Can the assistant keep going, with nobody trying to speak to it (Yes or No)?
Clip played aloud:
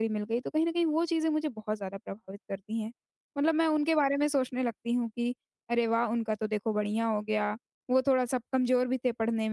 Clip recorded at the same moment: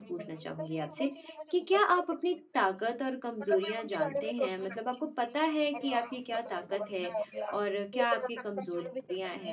No